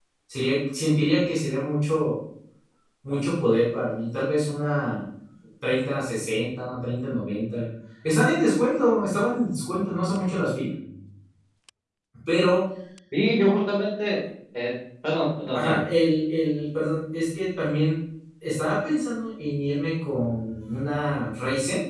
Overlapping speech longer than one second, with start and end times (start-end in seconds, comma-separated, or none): none